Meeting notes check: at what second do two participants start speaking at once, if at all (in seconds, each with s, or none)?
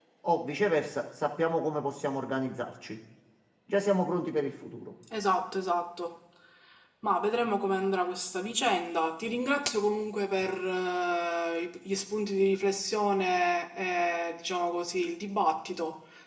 none